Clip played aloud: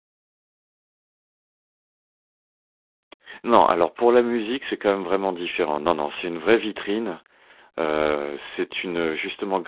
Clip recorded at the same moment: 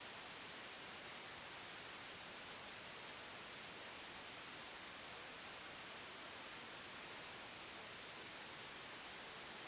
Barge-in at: none

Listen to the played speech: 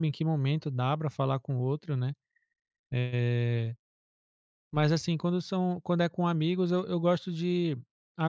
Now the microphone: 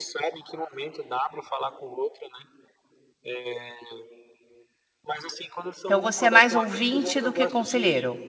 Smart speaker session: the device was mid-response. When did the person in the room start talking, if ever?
5.8 s

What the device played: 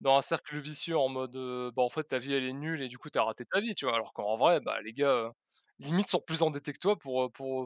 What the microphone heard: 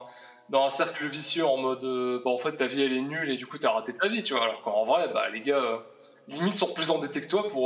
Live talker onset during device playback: none

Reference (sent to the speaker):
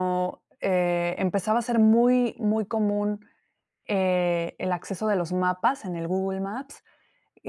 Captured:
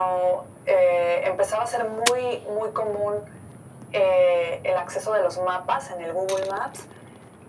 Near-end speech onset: none

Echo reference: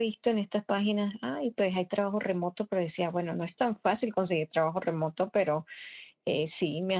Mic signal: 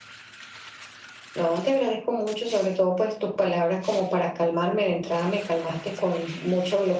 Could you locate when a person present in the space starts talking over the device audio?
1.3 s

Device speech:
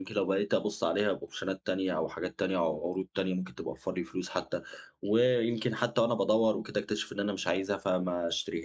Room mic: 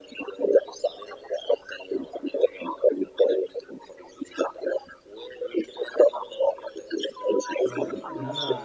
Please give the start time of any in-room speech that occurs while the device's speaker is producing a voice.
7.7 s

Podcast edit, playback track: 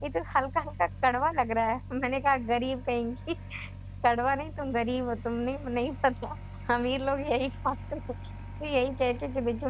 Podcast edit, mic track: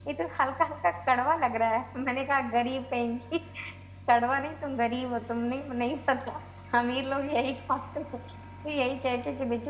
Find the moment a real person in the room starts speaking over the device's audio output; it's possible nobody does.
none

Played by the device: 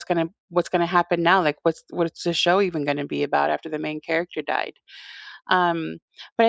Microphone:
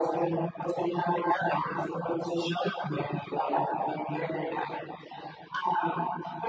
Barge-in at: none

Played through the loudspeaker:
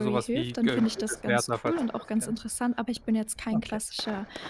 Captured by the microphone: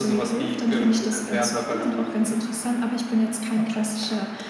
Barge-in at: none

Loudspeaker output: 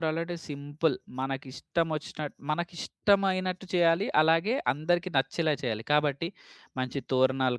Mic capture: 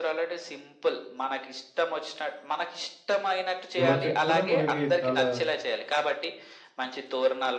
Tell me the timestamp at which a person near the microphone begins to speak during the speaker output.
3.8 s

